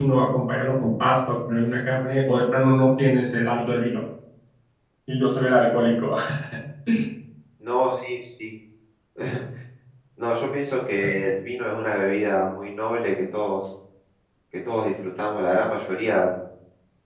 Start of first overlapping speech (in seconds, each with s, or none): none